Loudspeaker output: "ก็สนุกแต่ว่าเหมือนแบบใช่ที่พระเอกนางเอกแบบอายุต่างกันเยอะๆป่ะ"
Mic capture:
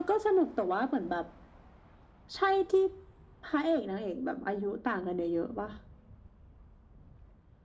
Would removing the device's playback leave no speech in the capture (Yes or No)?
Yes